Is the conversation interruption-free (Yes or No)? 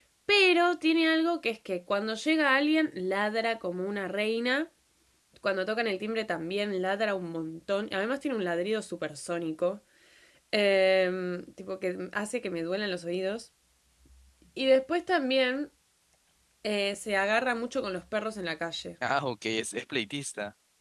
Yes